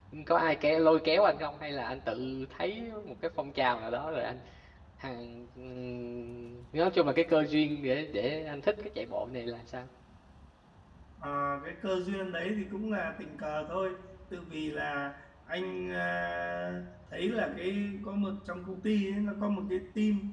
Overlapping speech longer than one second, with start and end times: none

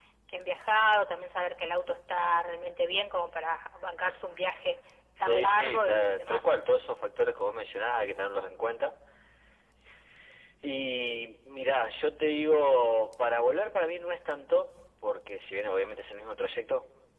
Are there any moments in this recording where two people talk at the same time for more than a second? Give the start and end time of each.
5.2-6.5

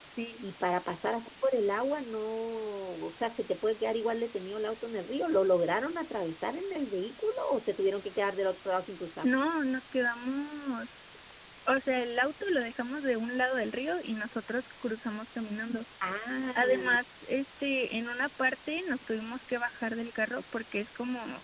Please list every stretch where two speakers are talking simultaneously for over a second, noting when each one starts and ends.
none

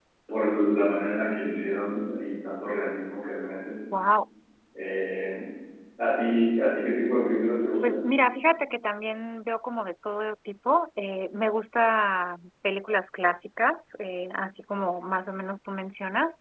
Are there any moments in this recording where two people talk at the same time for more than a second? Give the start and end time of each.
none

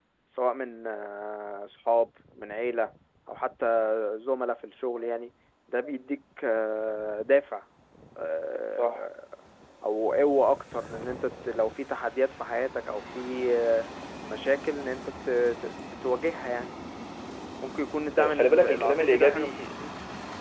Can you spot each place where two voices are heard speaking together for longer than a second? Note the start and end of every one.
18.2-19.7

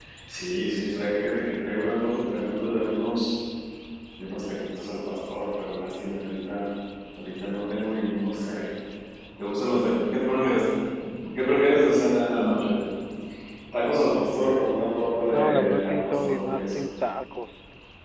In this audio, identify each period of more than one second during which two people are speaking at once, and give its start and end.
15.3-16.8

